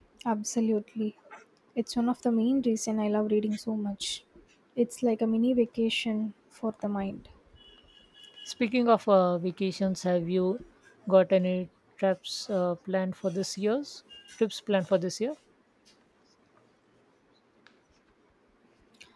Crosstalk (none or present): none